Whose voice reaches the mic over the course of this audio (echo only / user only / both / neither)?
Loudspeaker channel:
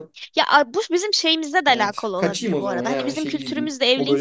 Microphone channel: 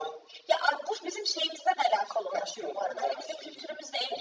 echo only